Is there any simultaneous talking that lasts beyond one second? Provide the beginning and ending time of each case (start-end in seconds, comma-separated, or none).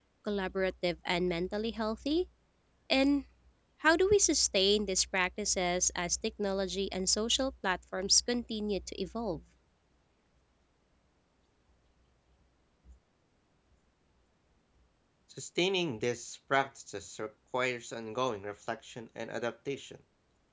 none